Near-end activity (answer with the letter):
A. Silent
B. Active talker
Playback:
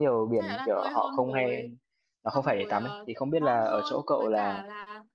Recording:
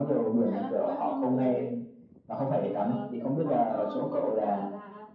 A